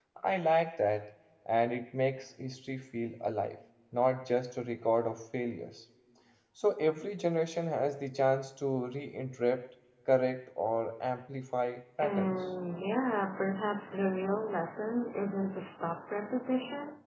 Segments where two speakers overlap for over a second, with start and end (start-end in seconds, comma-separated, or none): none